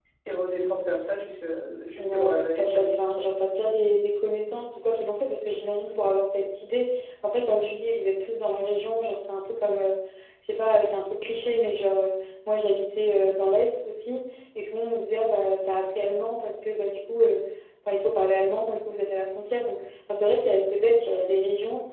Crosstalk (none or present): present